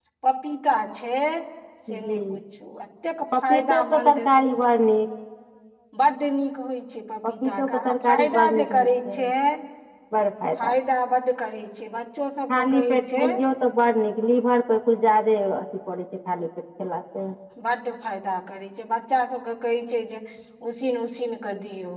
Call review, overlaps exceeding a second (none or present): present